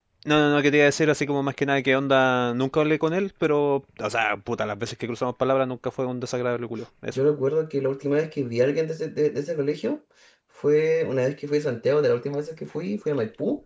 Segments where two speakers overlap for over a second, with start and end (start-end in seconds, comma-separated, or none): none